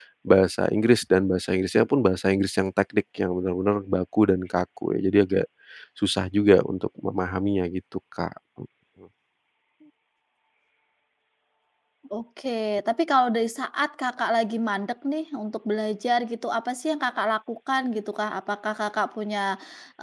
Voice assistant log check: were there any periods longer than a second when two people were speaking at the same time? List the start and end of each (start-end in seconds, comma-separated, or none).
none